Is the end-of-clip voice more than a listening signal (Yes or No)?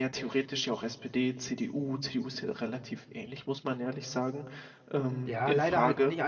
Yes